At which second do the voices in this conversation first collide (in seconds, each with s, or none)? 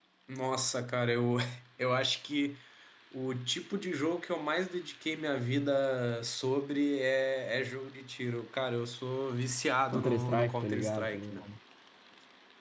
9.9 s